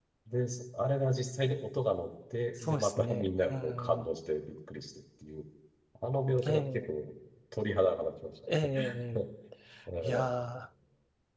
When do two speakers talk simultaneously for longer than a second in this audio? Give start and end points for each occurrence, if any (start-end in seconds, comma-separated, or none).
2.6-4.1